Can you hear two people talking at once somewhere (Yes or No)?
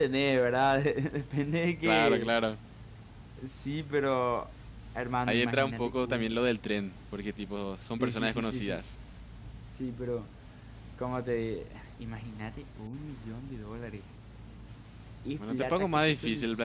Yes